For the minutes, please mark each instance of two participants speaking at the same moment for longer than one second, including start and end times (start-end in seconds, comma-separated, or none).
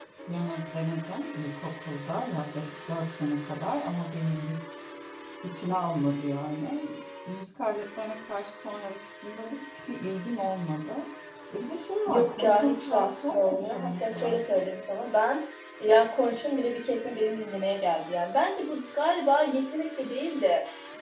12.1-14.6